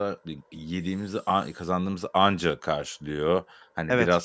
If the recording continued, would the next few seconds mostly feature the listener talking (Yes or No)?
No